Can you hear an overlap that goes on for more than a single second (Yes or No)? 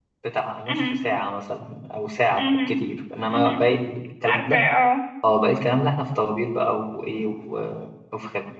No